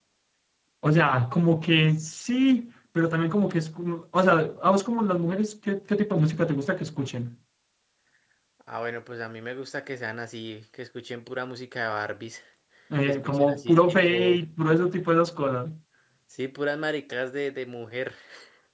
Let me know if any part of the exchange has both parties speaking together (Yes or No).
Yes